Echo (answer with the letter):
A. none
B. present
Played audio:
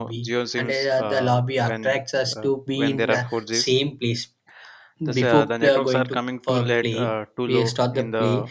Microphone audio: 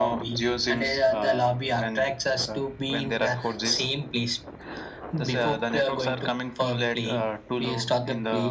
B